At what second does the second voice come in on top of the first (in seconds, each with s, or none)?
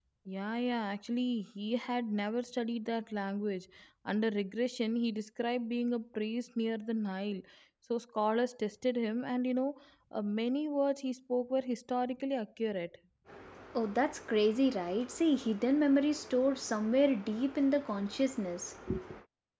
none